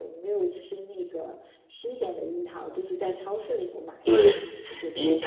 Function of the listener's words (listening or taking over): taking over